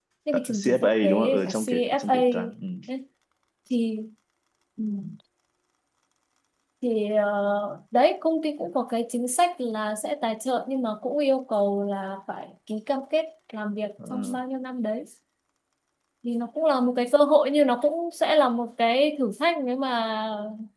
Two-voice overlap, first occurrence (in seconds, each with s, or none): 0.6 s